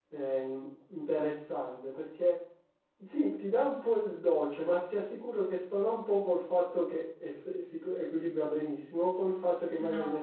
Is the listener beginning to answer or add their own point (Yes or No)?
No